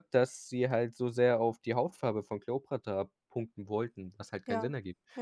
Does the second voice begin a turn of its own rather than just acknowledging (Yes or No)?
Yes